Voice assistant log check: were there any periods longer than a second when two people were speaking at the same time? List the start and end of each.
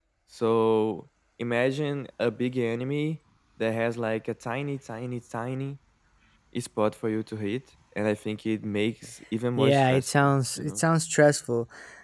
9.6-10.8

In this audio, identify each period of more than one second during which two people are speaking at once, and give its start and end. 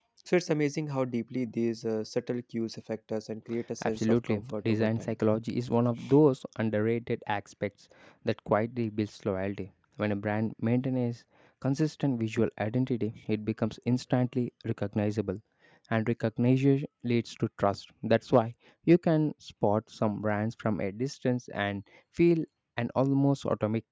3.8-5.1

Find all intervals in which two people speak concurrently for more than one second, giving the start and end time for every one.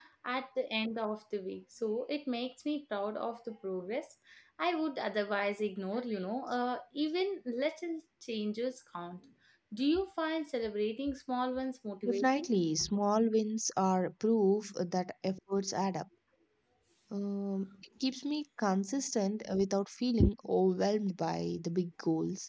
none

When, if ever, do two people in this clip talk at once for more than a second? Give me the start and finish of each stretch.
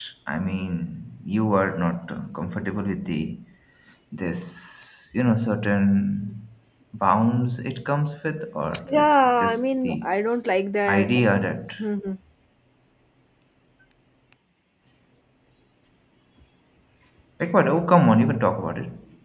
8.8-10.1

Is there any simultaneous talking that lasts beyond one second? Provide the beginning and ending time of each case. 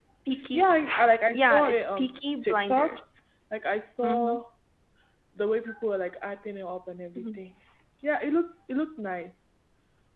1.3-3.0

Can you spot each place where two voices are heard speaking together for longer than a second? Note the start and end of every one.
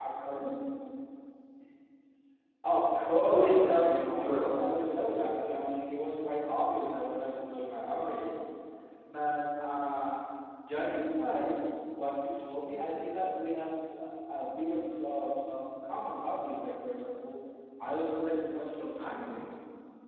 3.2-4.6

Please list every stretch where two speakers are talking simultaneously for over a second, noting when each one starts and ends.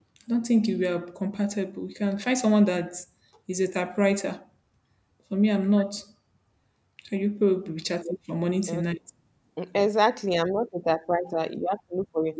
none

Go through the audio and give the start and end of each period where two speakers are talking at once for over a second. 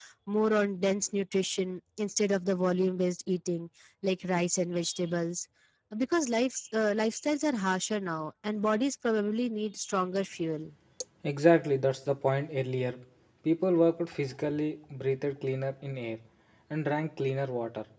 none

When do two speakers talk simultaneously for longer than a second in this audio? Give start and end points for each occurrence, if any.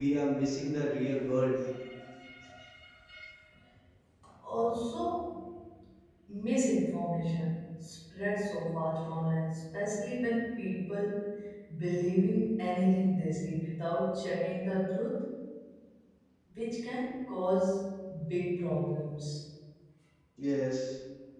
none

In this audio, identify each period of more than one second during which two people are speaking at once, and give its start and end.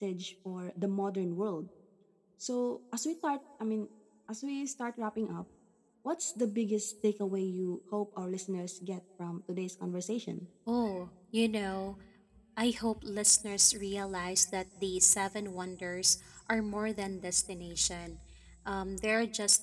none

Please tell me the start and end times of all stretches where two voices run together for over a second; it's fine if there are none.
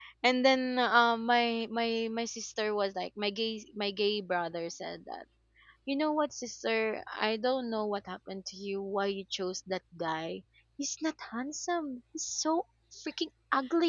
none

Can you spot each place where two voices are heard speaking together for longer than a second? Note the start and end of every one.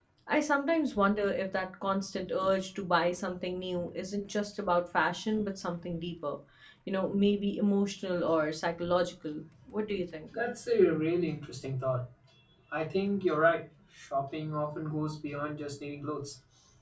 none

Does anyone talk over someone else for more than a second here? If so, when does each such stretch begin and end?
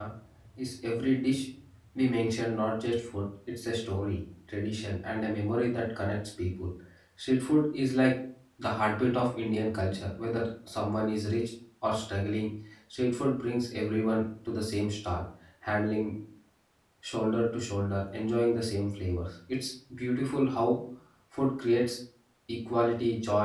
none

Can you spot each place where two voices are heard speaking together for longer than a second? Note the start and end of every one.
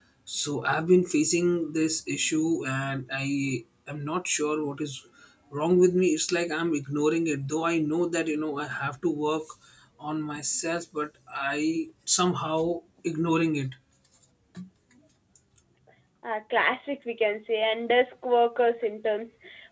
none

